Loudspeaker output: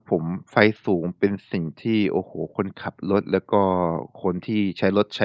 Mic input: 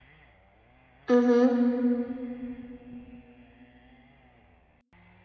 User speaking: Yes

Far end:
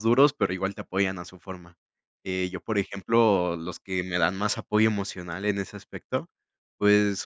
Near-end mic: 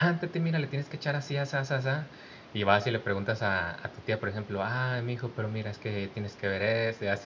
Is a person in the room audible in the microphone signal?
Yes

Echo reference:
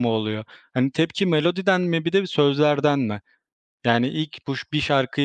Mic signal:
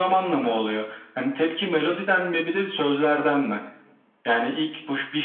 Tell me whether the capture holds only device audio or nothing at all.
Yes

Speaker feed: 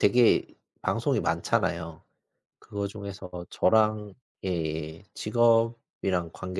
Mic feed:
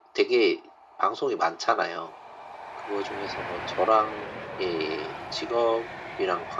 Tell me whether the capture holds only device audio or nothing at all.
Yes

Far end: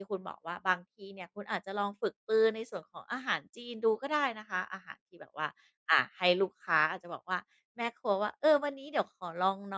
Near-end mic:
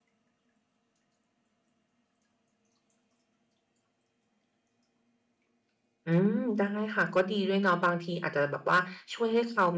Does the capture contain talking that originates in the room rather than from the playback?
Yes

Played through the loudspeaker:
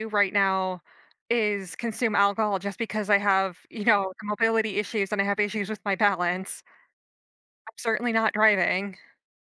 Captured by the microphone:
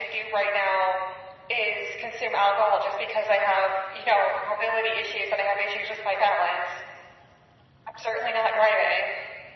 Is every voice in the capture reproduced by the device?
Yes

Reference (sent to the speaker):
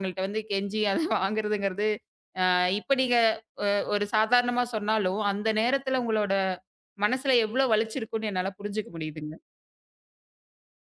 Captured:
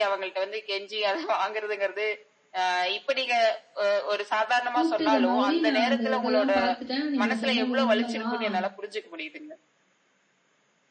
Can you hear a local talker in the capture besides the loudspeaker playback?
Yes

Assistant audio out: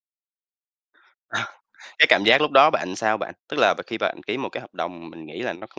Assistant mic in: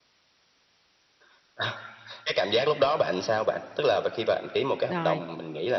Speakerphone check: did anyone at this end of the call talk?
Yes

